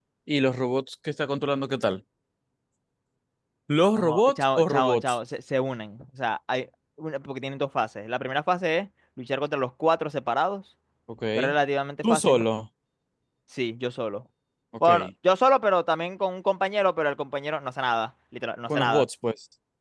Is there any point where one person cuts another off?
Yes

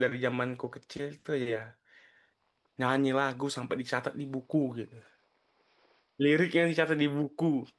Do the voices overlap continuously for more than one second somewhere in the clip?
No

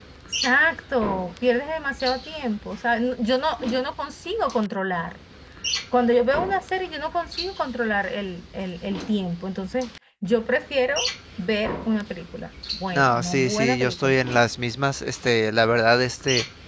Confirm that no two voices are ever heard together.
No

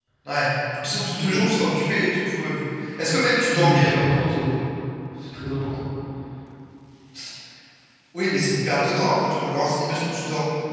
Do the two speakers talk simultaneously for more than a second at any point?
No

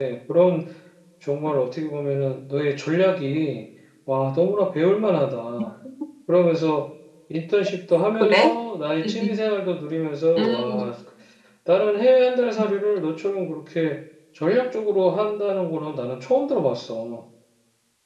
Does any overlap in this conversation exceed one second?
No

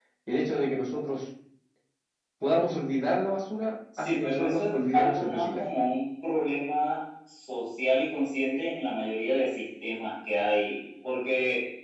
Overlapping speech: Yes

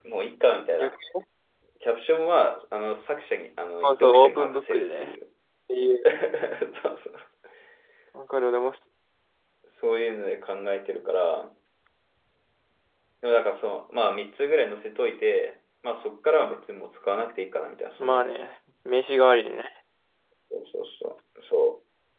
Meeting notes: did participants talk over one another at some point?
Yes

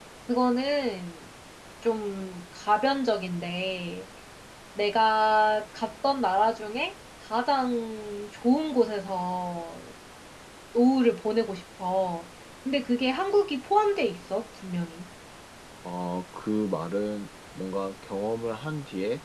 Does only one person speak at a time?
Yes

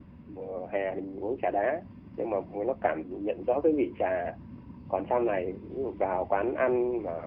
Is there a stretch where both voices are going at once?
No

